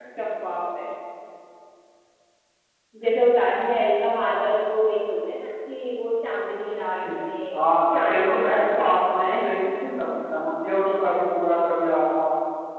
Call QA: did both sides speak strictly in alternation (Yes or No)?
No